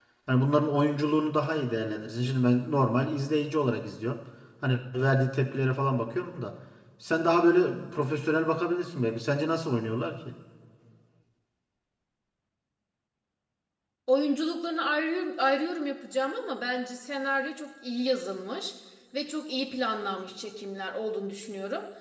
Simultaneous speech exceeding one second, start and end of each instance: none

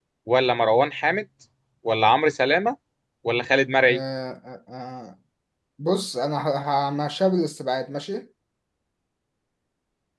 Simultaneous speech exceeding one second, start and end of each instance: none

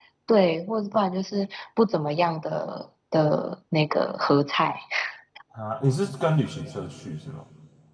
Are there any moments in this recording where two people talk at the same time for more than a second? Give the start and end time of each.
none

